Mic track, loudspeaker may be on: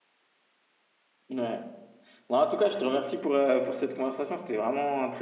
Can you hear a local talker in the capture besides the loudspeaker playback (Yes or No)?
Yes